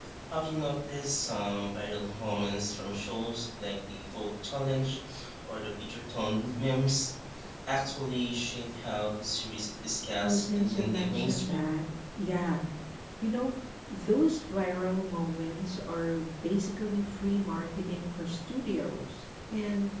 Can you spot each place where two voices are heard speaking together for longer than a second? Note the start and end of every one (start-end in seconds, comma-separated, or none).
10.2-11.7